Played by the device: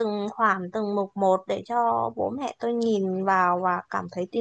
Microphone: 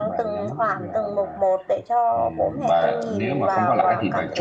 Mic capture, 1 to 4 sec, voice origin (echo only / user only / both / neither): both